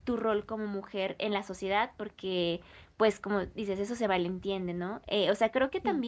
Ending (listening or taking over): listening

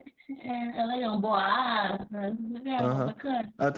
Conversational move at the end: taking over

